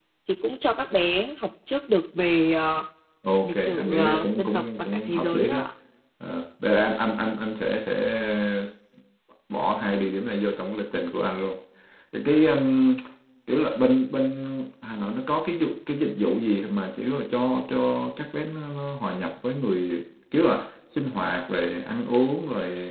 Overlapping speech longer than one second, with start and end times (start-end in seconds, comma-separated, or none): 3.4-5.6